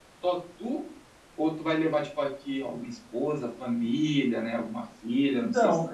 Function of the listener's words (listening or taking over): taking over